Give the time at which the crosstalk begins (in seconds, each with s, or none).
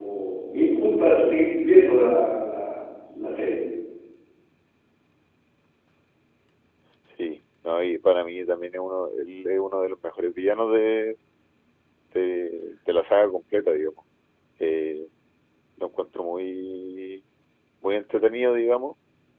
none